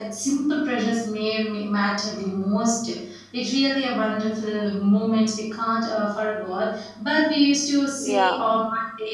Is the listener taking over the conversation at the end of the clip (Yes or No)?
No